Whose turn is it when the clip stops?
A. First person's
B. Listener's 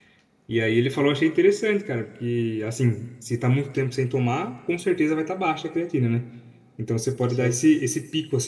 A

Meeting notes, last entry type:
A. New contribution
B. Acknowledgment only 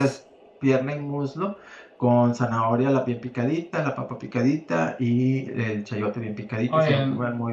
B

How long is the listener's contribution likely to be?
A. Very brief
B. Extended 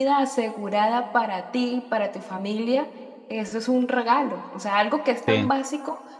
A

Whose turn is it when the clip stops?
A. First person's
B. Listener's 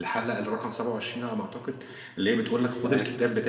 A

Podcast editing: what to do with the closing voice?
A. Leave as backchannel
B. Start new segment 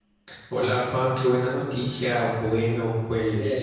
A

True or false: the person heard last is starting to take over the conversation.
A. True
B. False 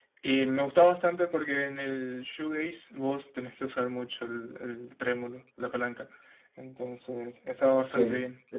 A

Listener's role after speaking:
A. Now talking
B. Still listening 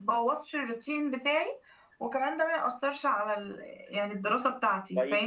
A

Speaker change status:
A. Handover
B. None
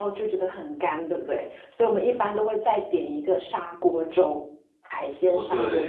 A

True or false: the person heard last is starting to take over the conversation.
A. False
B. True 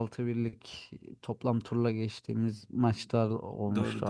B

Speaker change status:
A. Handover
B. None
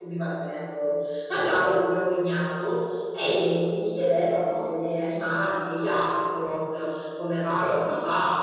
B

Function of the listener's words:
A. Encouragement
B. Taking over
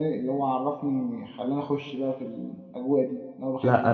B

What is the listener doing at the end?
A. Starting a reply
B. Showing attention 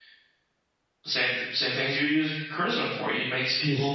B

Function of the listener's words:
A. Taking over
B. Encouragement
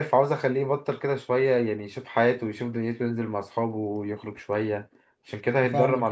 A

